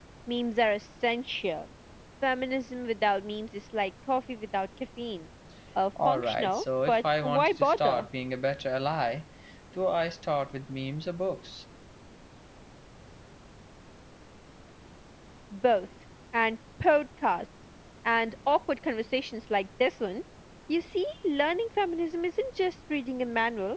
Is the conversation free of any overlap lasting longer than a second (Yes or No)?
No